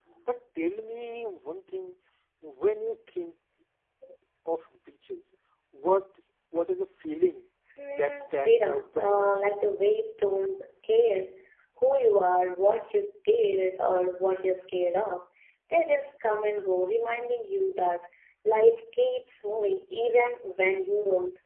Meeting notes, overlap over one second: present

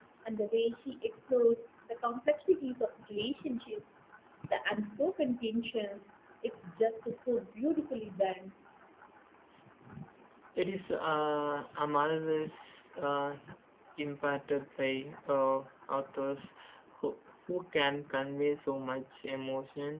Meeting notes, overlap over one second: none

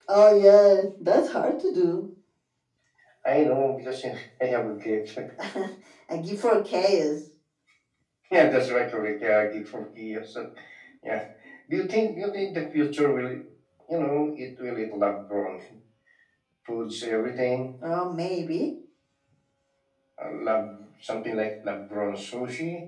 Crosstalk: none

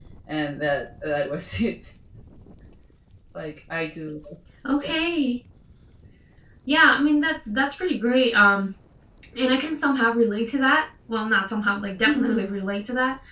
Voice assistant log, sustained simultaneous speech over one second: none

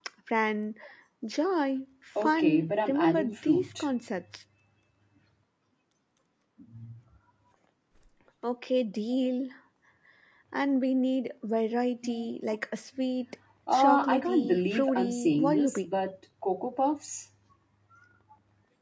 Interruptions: present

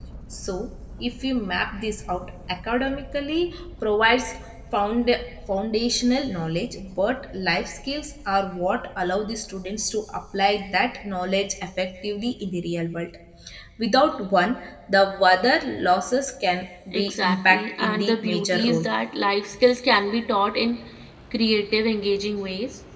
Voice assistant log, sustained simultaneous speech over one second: present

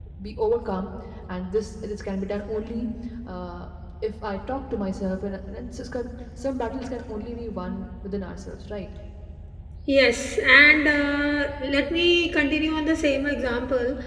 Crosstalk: none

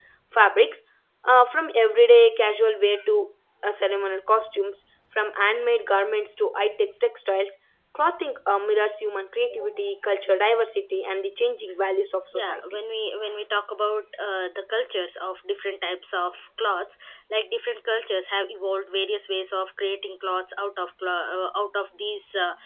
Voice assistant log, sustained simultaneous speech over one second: none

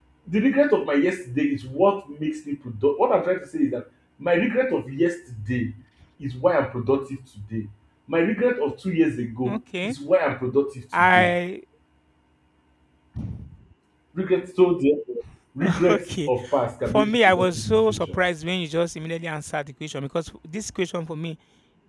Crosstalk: present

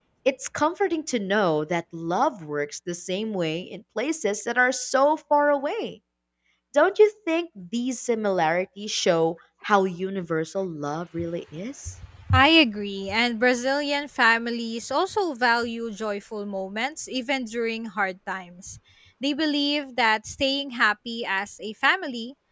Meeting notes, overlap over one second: none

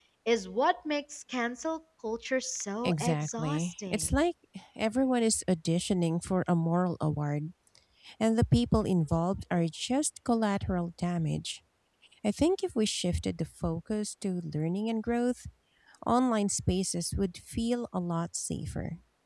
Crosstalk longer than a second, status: present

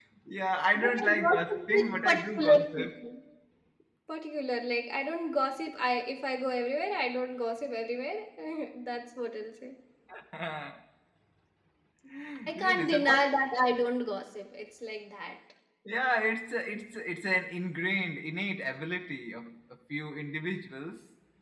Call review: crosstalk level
present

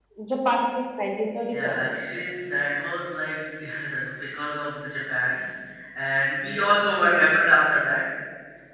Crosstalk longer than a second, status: none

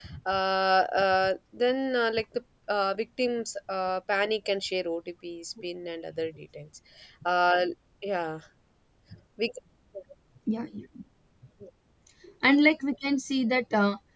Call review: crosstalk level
none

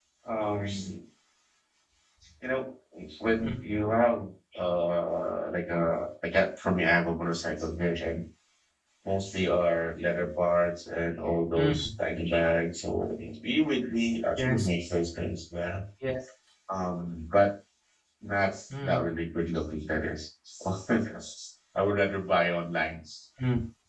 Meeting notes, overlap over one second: none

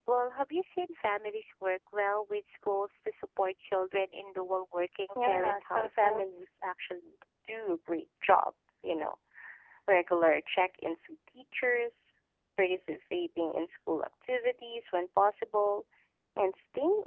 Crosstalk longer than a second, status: present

